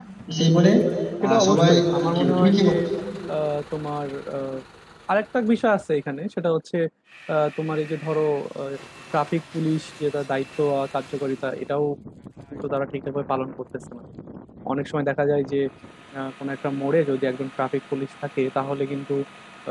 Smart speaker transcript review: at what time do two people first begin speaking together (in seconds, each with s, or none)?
1.2 s